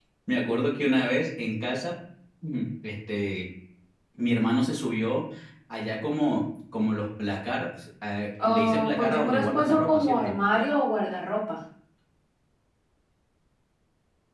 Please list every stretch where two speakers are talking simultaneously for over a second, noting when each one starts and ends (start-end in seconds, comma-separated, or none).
8.4-10.3